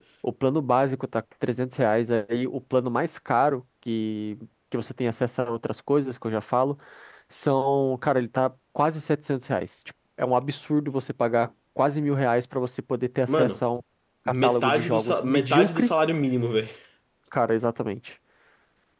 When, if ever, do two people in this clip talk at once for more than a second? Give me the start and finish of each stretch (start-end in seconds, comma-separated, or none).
14.4-15.9